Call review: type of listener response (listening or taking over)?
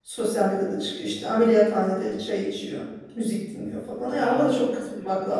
listening